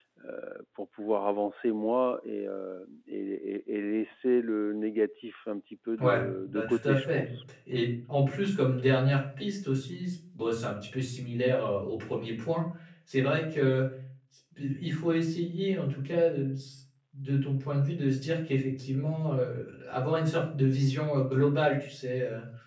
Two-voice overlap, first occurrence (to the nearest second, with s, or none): 6 s